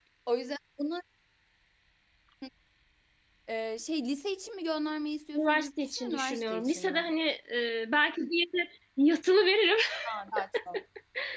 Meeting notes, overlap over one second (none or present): present